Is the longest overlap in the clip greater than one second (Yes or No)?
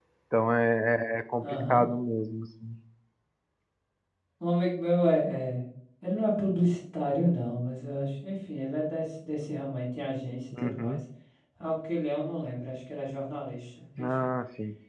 No